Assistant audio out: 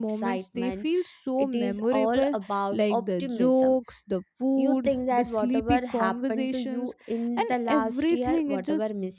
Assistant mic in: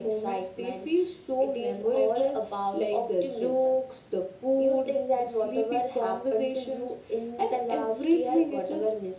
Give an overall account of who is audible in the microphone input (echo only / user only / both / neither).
echo only